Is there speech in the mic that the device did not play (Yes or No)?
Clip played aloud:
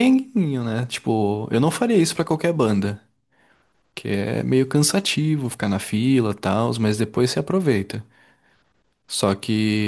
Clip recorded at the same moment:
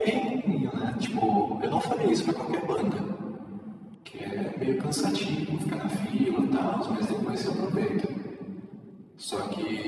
No